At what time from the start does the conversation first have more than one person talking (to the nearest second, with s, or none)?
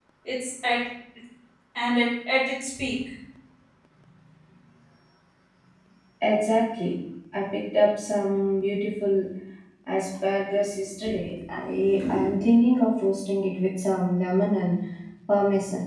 none